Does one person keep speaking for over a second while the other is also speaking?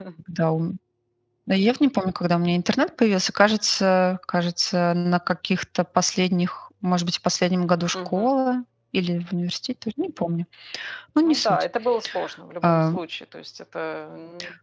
No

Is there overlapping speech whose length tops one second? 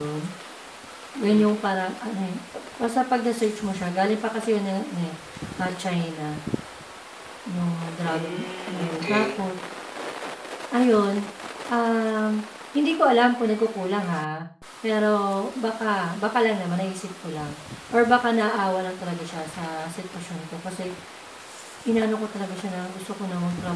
Yes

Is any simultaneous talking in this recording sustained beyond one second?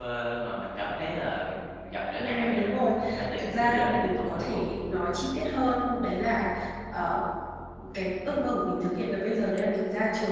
Yes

